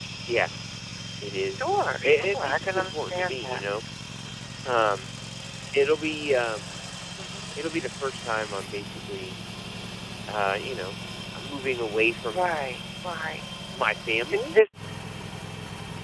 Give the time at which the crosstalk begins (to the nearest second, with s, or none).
2 s